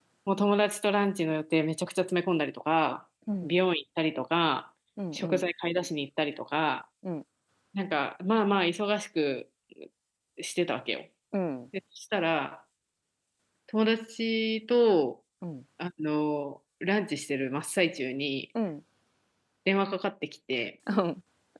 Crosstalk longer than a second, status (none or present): none